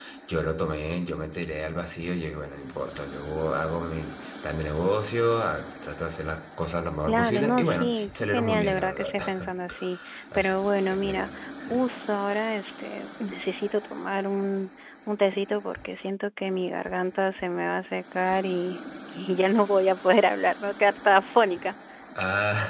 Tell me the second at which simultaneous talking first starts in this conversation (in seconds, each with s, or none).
7.1 s